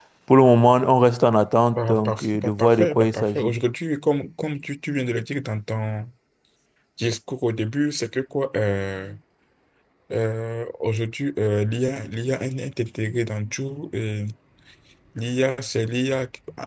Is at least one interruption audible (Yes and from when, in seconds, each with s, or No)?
Yes, from 1.7 s